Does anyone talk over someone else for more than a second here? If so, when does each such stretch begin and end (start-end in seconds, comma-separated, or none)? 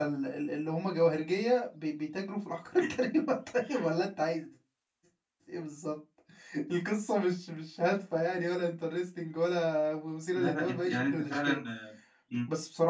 10.4-11.6